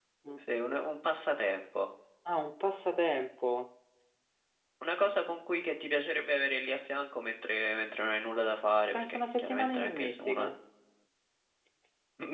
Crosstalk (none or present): present